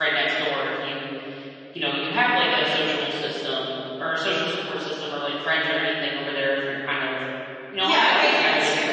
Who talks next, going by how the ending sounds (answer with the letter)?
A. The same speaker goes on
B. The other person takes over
B